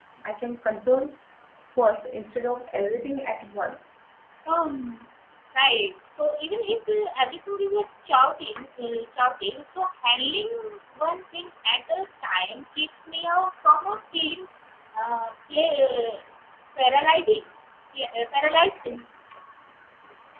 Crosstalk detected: No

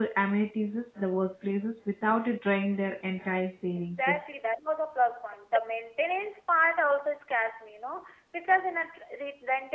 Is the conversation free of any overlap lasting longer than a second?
Yes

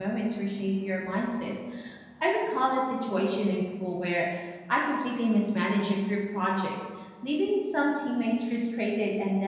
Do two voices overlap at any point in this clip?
No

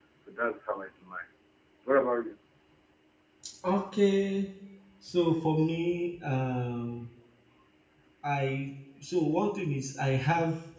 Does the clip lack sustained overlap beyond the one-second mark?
Yes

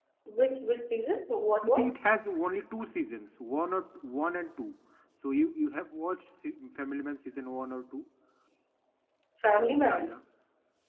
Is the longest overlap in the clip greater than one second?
No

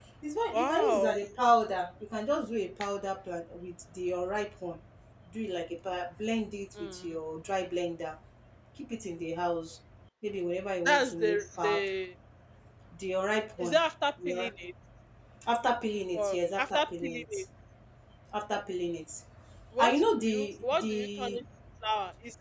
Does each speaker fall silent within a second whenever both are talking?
No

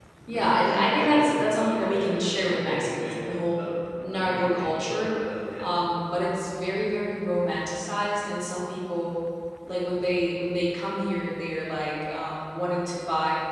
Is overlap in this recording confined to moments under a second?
No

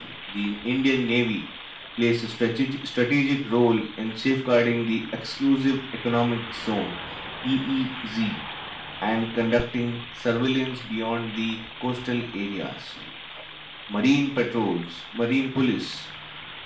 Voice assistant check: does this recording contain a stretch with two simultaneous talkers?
No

